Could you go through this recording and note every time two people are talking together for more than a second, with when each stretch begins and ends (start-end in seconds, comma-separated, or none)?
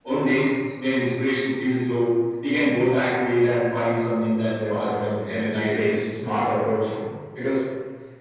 4.5-6.0